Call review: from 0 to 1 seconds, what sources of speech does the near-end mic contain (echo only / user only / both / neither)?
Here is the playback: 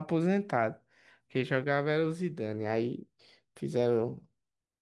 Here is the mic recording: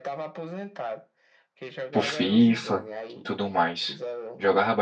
echo only